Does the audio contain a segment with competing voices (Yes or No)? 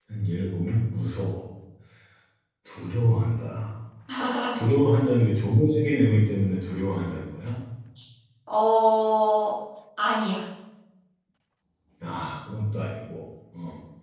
No